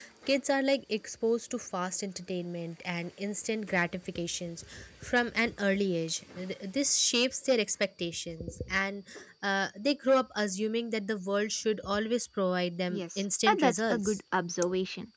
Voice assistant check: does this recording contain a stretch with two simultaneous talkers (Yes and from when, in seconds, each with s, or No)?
Yes, from 12.9 s